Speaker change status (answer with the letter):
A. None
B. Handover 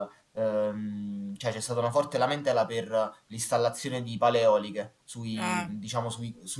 A